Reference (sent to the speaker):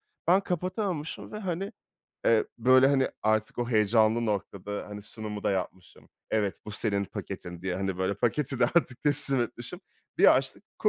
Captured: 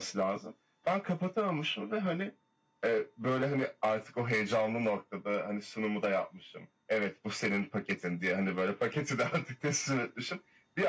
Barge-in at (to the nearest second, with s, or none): none